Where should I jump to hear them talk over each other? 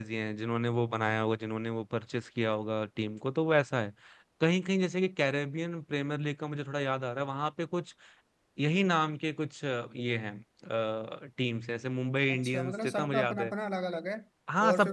12.3 s

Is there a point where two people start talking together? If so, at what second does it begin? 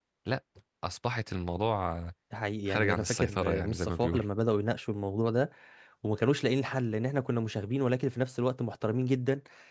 2.7 s

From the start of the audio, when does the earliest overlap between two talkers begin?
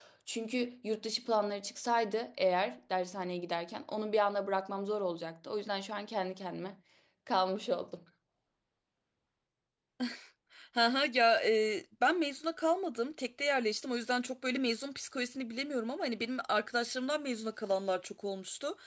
none

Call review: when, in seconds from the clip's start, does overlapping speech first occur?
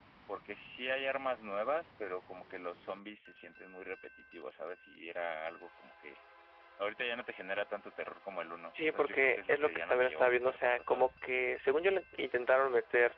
8.7 s

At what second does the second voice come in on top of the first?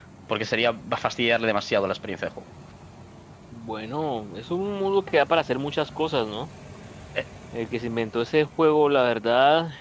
none

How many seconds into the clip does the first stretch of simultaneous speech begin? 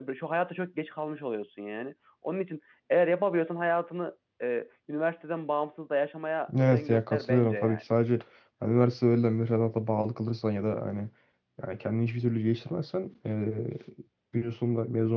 6.5 s

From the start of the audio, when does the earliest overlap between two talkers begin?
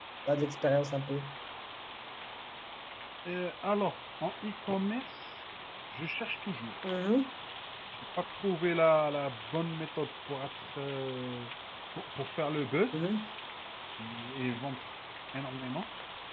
none

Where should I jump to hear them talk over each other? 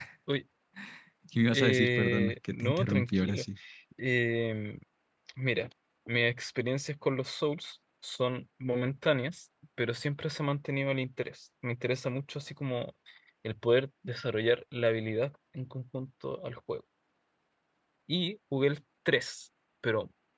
1.5 s

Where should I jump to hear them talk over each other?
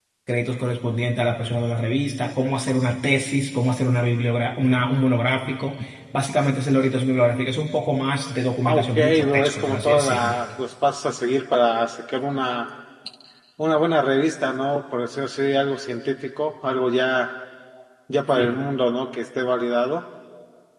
8.6 s

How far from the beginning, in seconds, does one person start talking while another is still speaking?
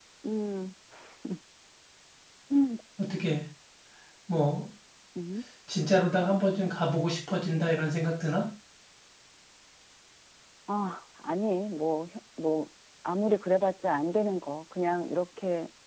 none

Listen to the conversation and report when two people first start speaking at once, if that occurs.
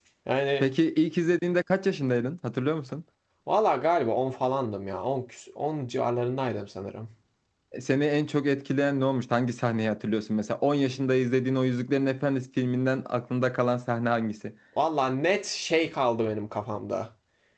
none

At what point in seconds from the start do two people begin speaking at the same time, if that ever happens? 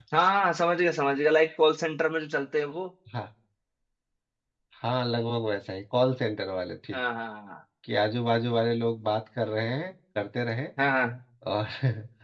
none

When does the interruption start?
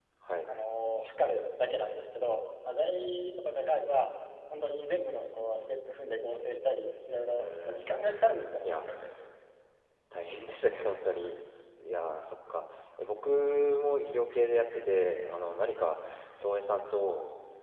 7.4 s

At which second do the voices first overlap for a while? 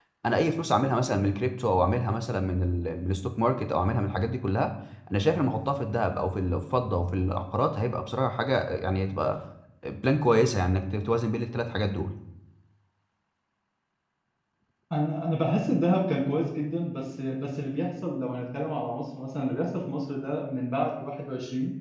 none

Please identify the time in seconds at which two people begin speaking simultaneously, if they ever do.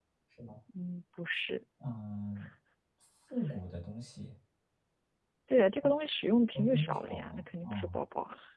6.5 s

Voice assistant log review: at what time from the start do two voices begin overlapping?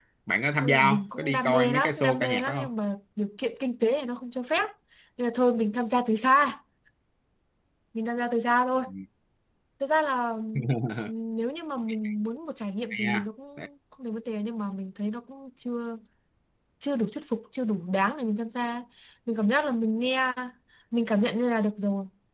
0.6 s

